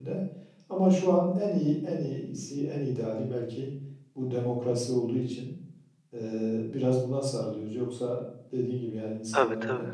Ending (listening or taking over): listening